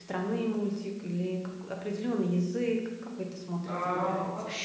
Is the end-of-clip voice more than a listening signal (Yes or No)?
Yes